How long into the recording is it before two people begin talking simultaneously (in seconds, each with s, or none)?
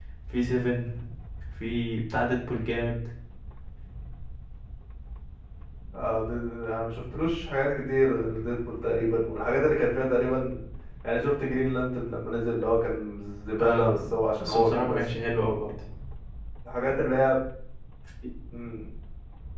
13.6 s